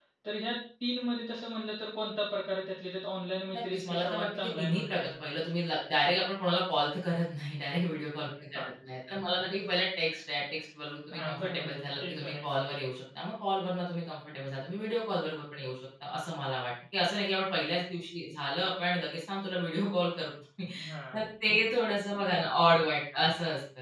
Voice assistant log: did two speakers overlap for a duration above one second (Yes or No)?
Yes